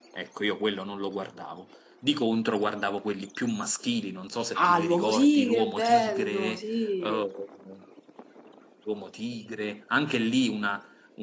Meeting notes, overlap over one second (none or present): present